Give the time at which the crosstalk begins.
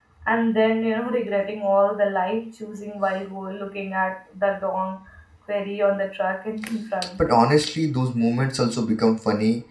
none

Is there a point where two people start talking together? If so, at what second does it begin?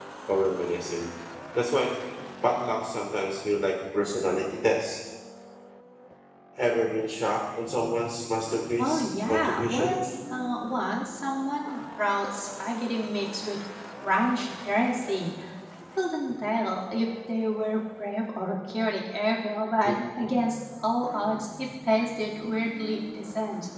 9 s

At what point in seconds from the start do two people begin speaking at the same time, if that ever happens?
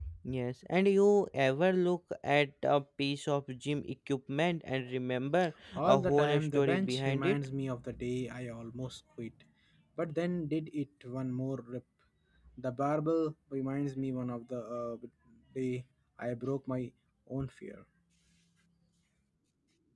6 s

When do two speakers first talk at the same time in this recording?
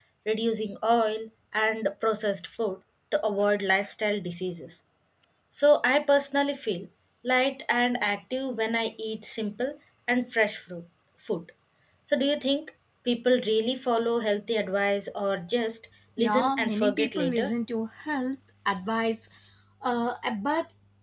16 s

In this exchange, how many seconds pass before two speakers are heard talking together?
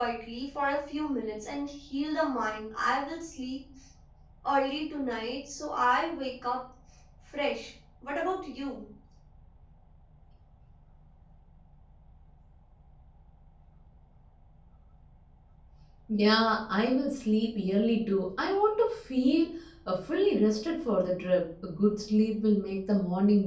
none

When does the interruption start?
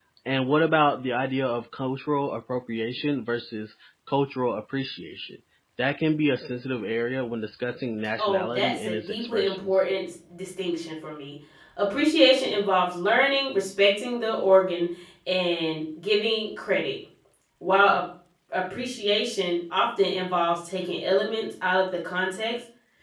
8 s

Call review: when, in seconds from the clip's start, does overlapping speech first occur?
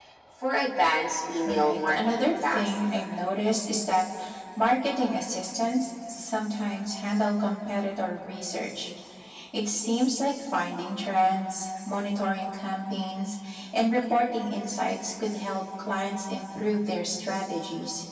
1 s

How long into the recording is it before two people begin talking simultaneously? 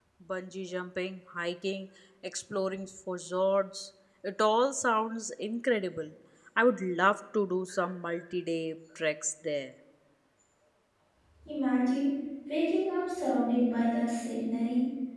none

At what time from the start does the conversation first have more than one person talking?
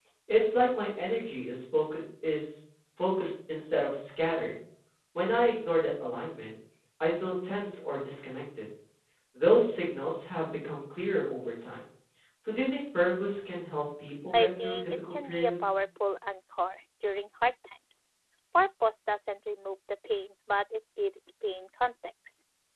14 s

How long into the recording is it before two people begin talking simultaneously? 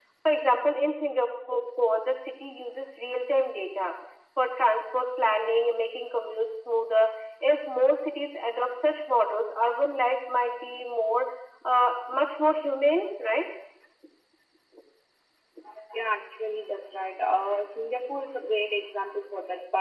none

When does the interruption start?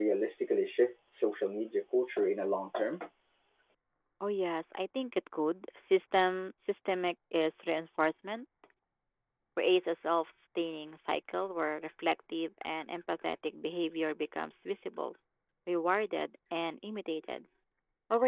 none

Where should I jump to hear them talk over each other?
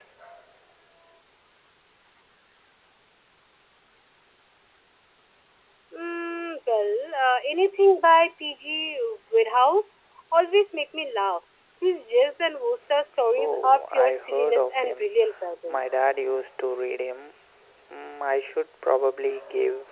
13 s

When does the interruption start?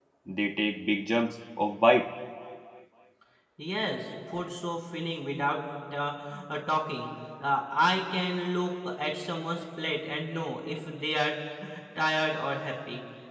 none

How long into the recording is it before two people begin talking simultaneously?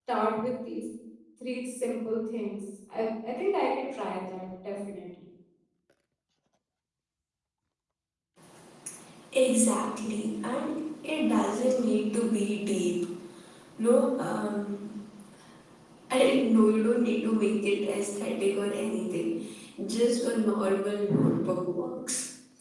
none

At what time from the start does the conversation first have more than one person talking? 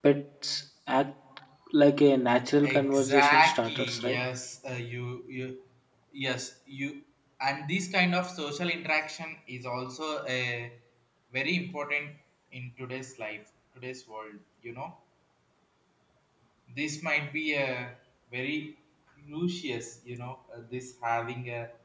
3 s

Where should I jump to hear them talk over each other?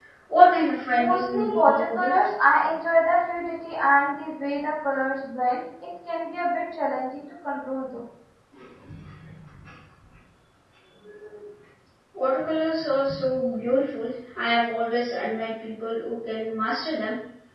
1 s

